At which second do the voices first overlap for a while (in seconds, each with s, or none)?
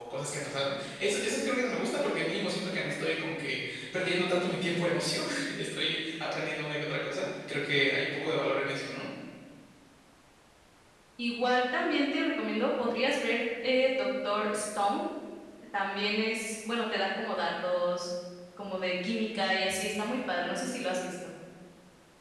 none